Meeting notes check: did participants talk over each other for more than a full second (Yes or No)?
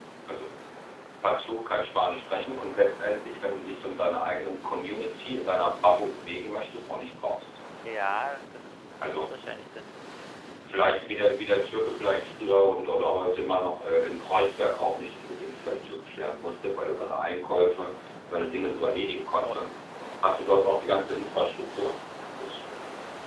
No